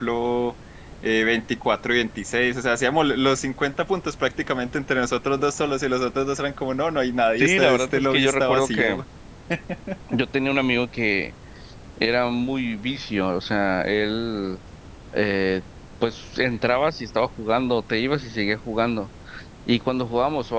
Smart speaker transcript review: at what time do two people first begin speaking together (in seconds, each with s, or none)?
7.4 s